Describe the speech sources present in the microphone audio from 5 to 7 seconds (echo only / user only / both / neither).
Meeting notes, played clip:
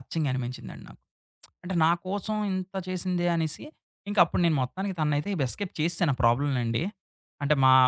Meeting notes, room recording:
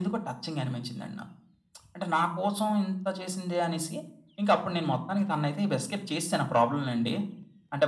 echo only